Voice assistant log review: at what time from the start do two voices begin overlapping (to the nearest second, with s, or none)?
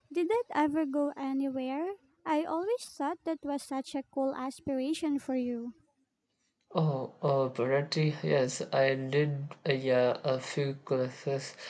none